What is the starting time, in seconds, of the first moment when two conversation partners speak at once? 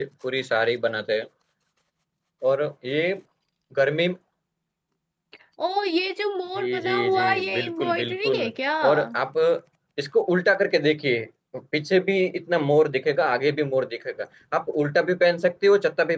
7 s

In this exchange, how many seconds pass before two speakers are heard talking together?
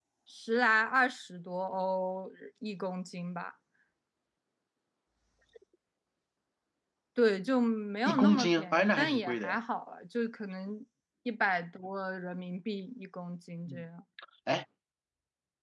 8 s

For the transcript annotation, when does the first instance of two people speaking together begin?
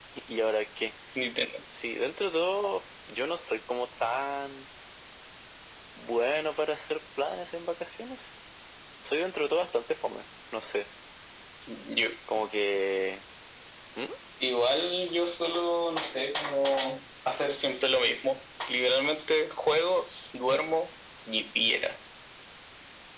none

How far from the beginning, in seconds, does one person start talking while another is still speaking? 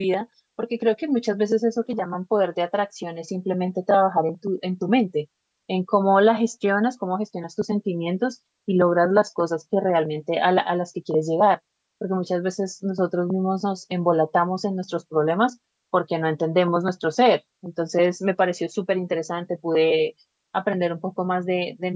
none

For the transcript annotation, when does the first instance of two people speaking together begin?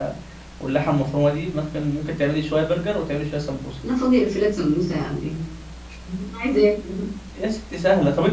none

